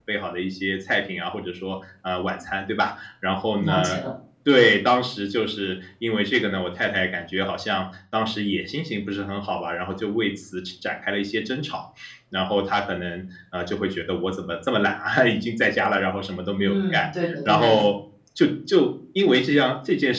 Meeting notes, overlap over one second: present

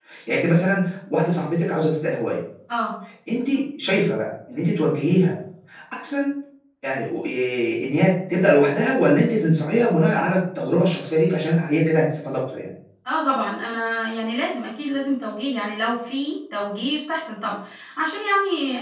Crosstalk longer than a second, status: none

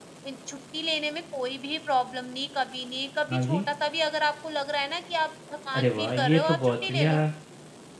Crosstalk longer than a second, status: present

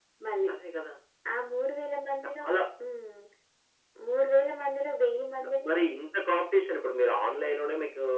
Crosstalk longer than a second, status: none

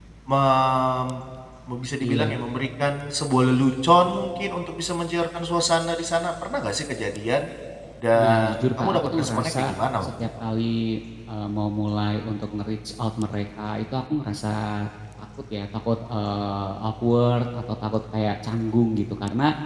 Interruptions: present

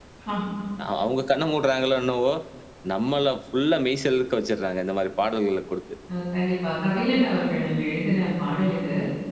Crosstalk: none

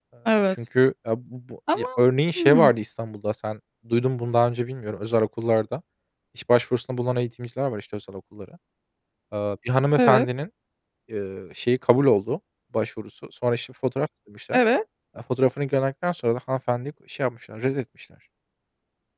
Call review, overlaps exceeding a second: none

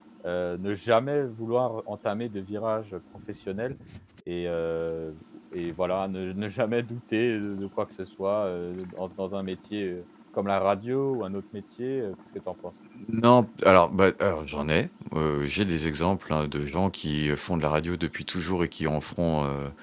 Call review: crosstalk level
none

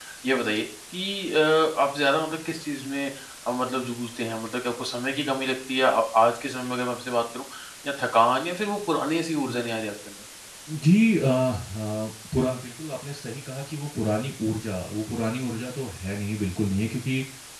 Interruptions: none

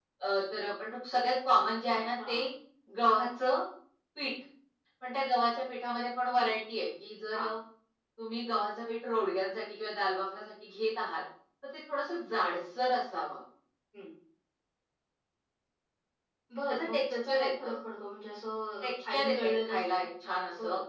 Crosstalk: present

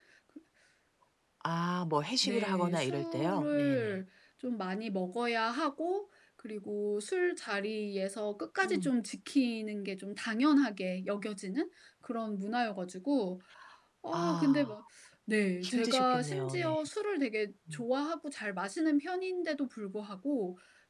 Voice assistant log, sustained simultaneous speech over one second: present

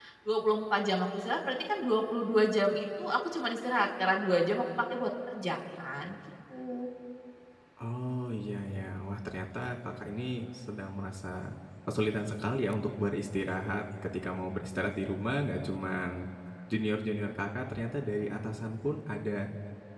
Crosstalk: none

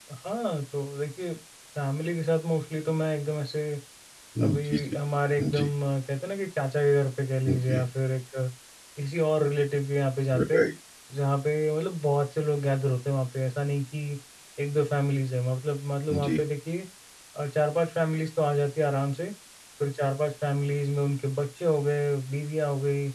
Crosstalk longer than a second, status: none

